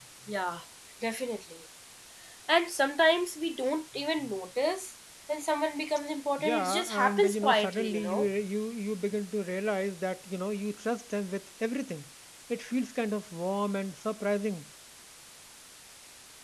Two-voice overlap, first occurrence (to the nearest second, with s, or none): 6 s